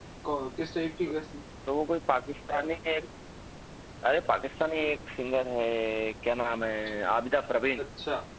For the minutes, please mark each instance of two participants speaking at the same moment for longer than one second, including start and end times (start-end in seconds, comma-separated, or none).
none